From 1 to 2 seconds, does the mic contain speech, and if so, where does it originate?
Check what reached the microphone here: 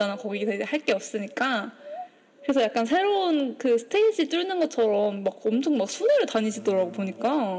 echo only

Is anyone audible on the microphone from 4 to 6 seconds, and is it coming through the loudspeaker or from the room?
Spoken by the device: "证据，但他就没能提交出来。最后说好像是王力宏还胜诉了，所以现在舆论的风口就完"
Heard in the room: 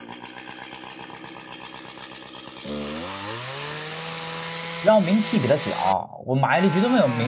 user only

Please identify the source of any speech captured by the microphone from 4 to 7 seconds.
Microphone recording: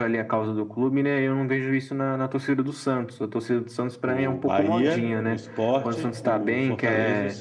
both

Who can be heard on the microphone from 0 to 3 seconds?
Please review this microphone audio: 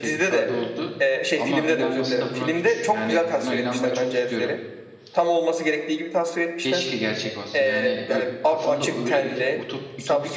both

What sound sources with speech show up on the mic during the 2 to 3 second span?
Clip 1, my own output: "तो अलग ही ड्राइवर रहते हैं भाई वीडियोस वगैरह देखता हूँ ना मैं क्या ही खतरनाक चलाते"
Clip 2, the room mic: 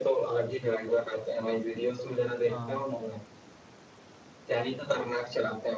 both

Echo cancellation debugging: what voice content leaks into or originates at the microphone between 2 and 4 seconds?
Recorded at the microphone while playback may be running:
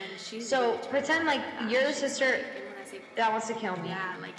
both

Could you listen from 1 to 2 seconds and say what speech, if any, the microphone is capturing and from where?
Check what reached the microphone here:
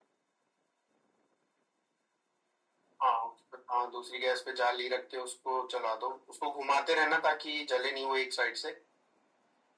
neither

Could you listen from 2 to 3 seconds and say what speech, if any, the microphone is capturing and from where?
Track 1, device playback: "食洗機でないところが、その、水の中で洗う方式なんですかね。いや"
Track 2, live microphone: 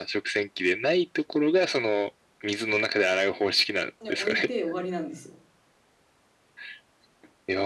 echo only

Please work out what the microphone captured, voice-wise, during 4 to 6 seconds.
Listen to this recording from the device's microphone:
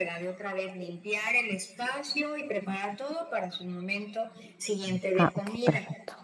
both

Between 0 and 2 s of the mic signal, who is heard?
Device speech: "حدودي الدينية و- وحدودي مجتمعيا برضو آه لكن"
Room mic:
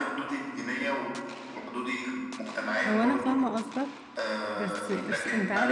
echo only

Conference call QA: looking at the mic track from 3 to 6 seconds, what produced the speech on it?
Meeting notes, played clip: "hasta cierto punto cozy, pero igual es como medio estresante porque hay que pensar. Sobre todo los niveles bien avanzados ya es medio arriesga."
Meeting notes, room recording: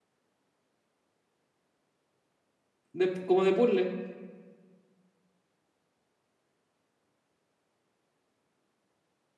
user only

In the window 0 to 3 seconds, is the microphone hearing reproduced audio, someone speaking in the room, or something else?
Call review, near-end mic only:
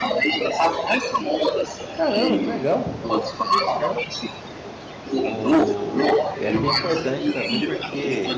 both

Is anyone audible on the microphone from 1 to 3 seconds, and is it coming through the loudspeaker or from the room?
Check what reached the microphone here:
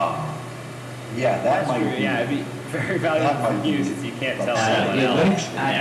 echo only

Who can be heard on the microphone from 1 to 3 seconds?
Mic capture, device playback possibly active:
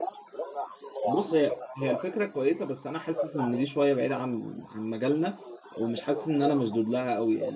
both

